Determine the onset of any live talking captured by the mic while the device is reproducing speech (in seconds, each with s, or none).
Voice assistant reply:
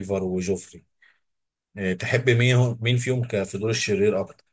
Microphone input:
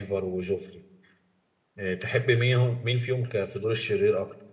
none